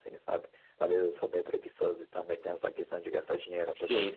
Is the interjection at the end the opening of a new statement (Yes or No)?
Yes